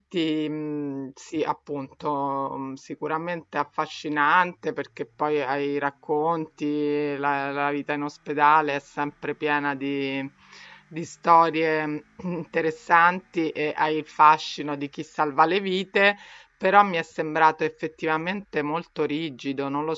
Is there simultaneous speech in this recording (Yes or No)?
No